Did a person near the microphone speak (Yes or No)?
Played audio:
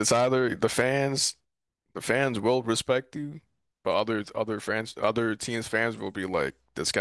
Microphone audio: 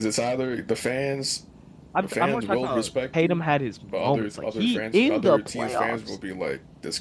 Yes